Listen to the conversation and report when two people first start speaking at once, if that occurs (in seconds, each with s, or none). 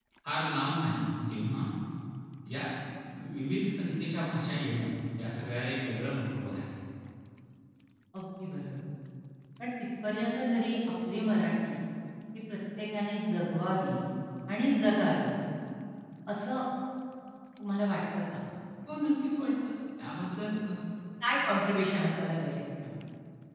none